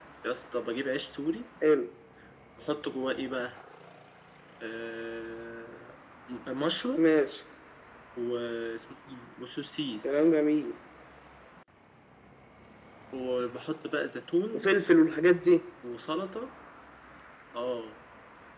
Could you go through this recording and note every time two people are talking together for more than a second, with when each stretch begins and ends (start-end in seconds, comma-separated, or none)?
none